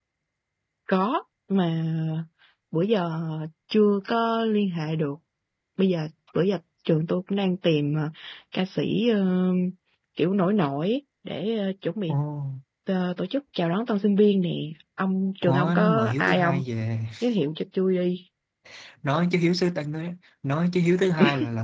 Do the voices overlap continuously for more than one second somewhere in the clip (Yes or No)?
Yes